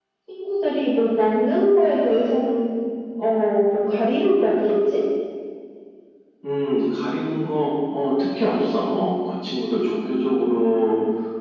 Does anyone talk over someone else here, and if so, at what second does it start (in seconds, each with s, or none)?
none